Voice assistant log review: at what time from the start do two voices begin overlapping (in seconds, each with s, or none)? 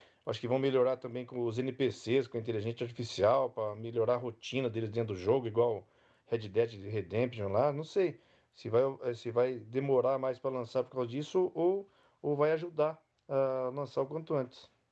none